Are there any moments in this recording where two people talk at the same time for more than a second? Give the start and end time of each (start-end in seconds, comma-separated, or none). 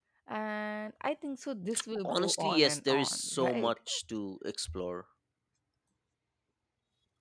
2.0-3.8